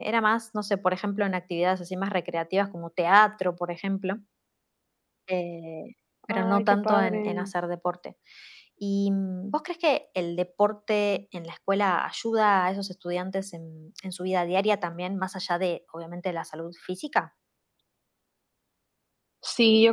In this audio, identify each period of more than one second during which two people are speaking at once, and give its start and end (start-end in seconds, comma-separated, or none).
6.3-7.5